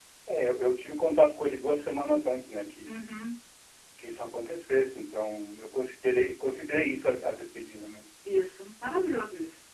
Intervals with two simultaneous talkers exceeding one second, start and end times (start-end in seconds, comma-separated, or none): none